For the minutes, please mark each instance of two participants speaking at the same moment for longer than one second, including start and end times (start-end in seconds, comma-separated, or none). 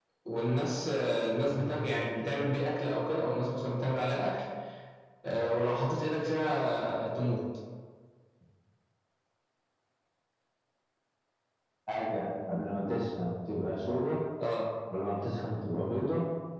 none